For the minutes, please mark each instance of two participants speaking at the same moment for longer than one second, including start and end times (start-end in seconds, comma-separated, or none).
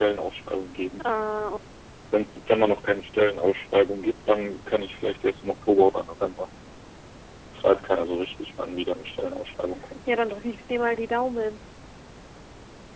none